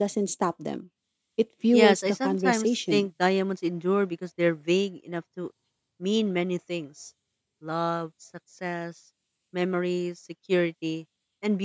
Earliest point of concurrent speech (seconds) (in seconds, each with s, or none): 1.7 s